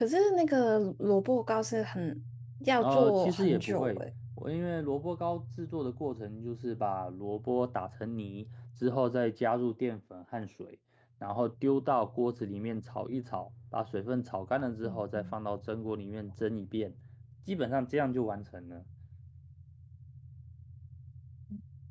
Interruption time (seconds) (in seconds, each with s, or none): 2.8 s